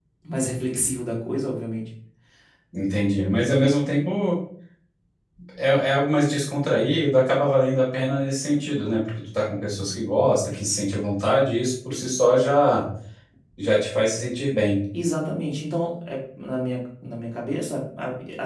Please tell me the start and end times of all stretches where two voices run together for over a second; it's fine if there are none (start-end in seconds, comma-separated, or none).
none